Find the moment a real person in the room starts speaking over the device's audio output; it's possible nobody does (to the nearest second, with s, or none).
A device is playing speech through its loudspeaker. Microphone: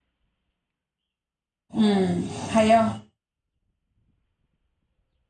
2 s